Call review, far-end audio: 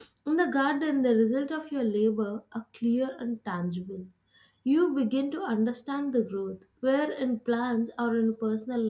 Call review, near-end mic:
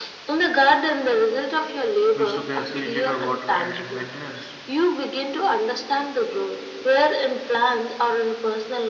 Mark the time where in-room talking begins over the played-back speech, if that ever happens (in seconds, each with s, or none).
2.1 s